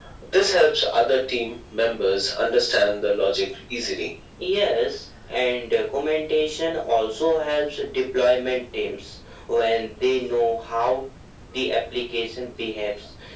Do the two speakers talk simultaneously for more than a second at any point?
No

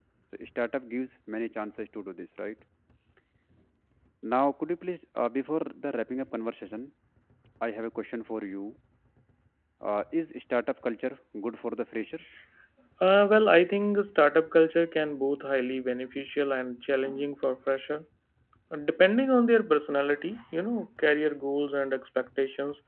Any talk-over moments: No

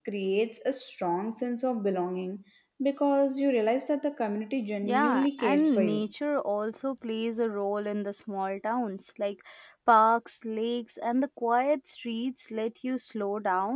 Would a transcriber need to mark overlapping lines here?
Yes, from 4.8 s

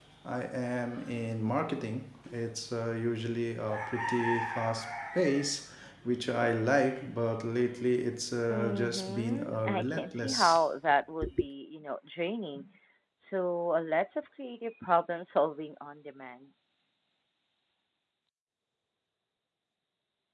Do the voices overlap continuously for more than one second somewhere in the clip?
Yes, from 8.5 s

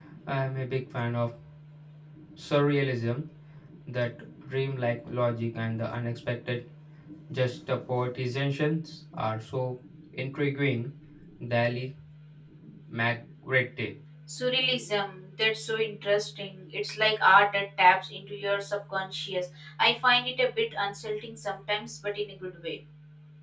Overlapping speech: No

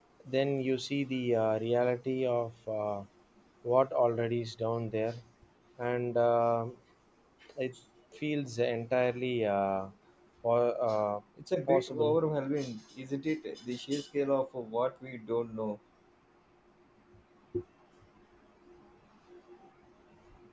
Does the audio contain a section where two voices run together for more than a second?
No

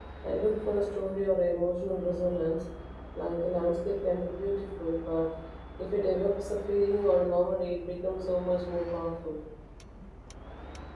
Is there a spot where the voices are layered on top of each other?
No

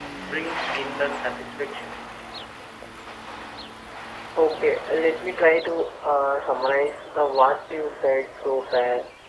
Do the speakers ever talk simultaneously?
No

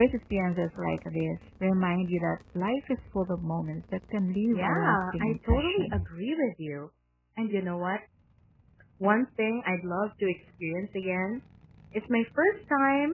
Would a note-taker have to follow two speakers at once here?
Yes, from 4.5 s

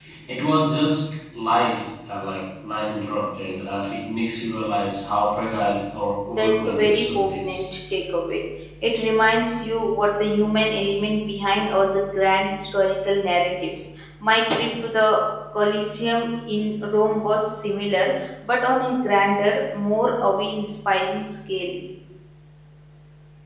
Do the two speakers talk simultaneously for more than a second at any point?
Yes, from 6.4 s

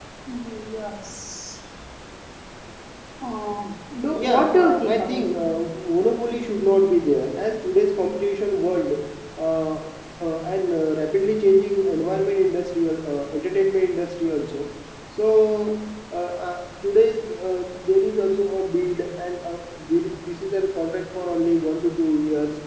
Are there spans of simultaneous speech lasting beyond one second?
Yes, from 4.1 s

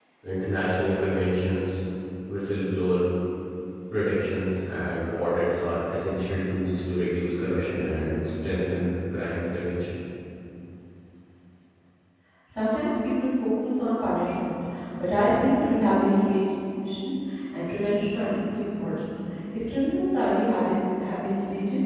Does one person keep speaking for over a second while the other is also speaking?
No

